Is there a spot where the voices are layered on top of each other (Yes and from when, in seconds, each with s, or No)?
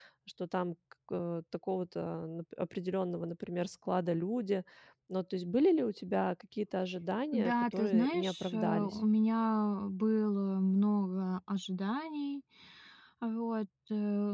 Yes, from 7.3 s